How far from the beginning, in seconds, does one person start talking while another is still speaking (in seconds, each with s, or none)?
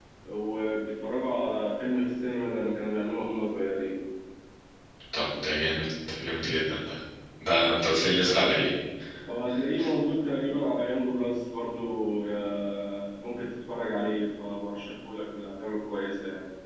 none